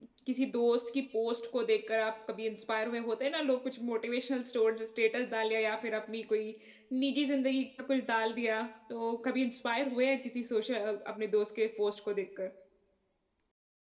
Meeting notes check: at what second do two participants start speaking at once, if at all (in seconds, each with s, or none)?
none